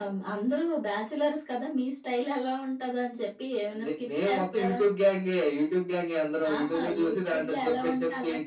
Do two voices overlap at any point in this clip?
Yes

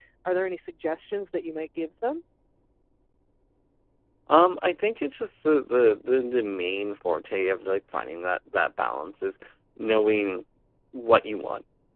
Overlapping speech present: No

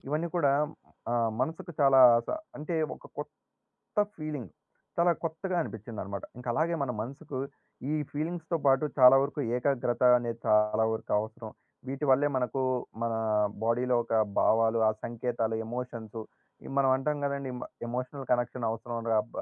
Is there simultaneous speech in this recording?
No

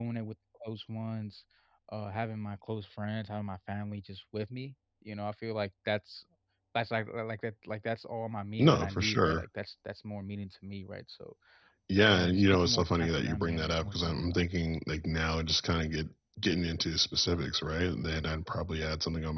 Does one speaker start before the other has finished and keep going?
Yes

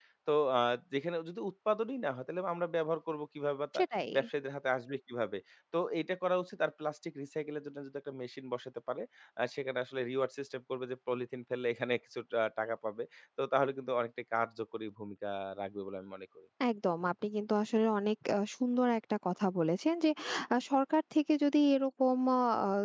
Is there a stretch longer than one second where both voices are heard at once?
No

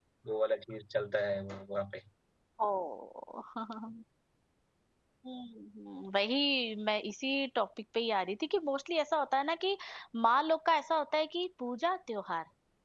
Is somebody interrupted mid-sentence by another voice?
No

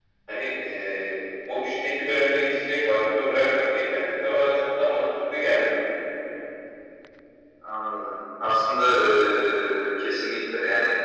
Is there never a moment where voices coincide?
Yes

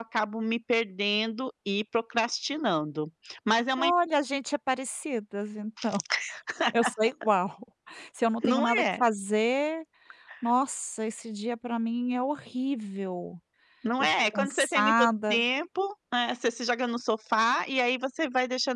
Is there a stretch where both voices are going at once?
Yes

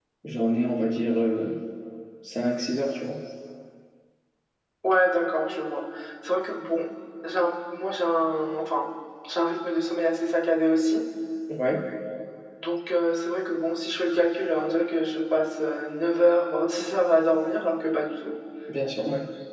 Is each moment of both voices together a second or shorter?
Yes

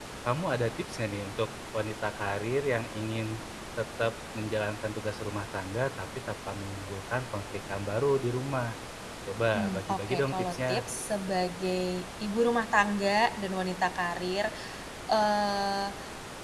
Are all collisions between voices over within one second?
No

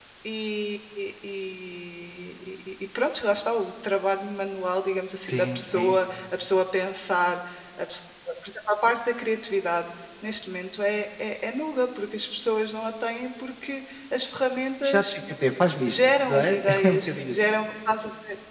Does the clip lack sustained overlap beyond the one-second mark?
No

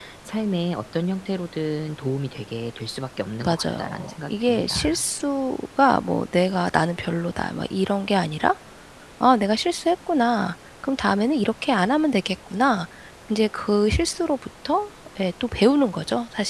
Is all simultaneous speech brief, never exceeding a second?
No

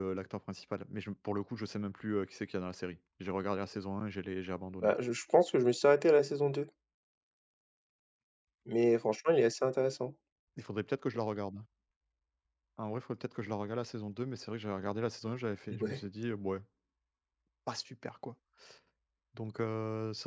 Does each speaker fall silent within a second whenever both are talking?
Yes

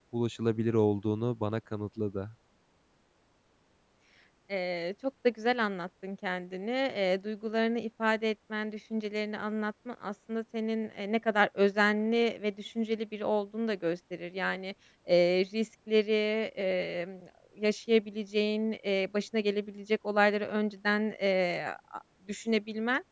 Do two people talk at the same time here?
No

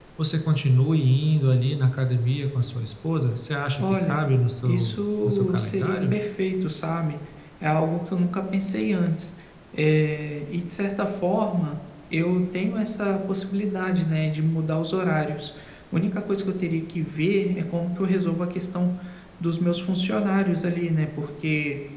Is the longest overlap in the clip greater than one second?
Yes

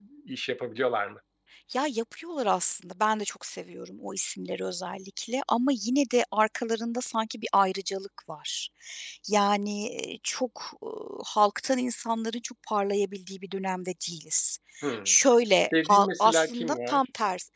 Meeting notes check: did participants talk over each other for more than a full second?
Yes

